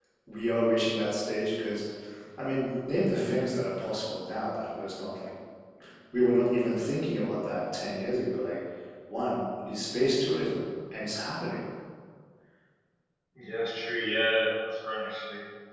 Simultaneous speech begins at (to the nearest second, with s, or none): none